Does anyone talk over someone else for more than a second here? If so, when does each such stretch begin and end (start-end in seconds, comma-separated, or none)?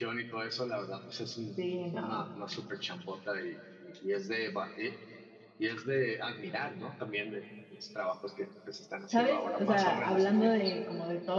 9.1-10.7